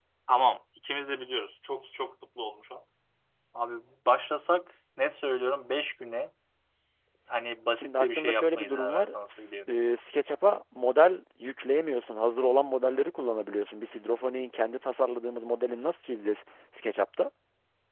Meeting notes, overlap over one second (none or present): present